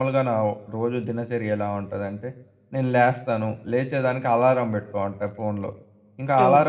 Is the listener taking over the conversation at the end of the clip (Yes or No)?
No